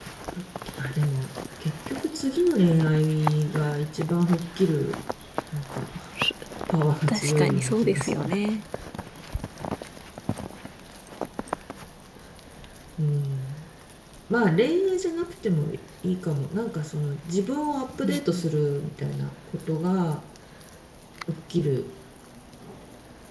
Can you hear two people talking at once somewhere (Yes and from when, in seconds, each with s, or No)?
Yes, from 7.1 s